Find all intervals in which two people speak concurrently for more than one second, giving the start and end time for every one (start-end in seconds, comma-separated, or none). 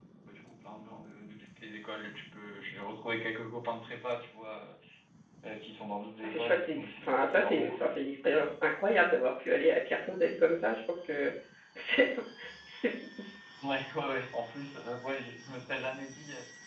6.2-8.0